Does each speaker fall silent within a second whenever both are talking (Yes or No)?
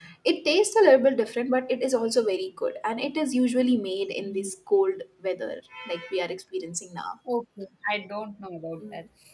Yes